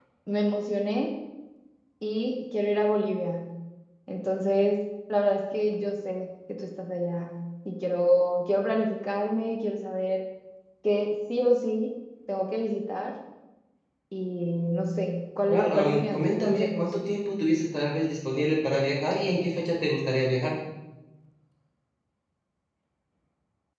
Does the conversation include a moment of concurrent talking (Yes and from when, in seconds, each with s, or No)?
Yes, from 15.5 s